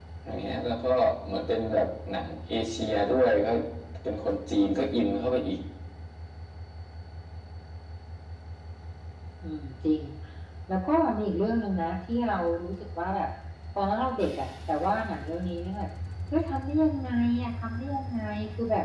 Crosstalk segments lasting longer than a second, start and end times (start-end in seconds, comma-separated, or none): none